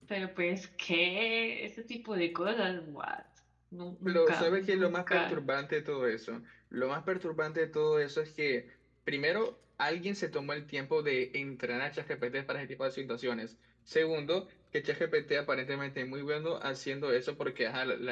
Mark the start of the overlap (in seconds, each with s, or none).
4.0 s